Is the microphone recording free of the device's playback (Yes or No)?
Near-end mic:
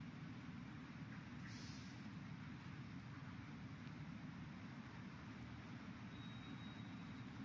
Yes